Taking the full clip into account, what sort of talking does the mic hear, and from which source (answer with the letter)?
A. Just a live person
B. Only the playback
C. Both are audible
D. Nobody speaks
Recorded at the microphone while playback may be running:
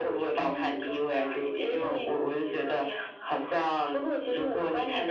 B